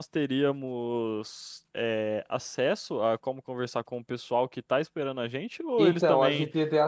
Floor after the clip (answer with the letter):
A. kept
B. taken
B